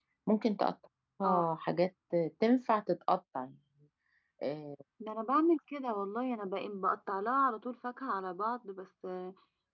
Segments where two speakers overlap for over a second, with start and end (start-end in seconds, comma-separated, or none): none